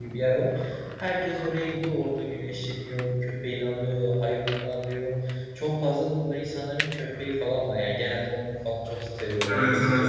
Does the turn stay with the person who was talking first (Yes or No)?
No